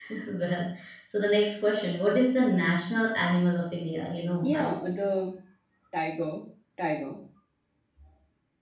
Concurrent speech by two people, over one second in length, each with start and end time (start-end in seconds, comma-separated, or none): none